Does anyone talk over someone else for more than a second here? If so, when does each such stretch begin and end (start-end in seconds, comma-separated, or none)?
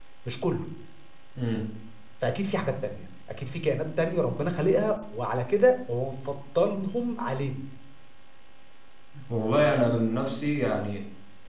none